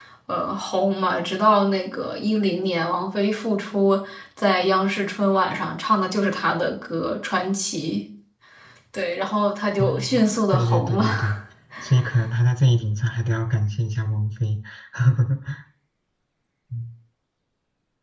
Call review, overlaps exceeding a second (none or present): present